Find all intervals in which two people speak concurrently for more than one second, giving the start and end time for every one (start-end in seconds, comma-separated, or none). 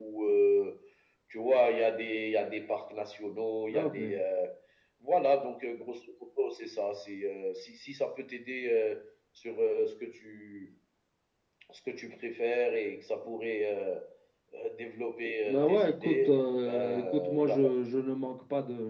15.4-17.6